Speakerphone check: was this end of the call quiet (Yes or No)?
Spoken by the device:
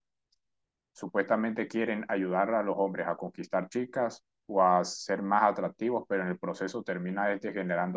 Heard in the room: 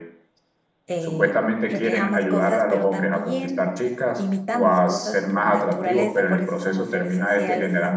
No